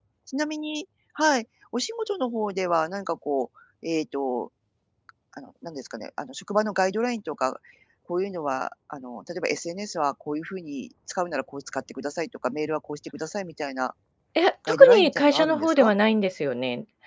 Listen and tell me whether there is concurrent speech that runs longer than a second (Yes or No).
Yes